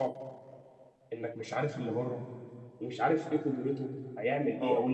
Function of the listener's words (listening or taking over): taking over